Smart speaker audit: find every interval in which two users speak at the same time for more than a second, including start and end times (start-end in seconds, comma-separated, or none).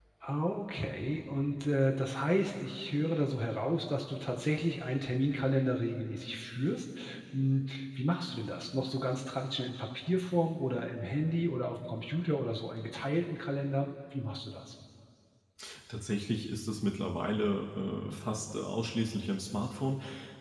none